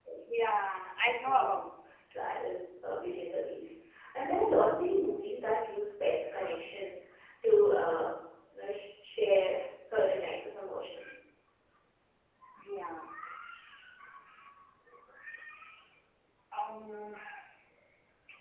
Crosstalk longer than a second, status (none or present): none